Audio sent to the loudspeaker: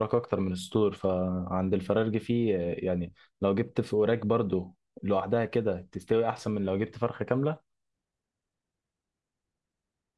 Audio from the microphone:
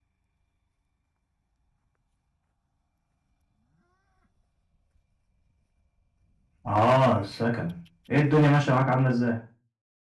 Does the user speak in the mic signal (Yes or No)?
Yes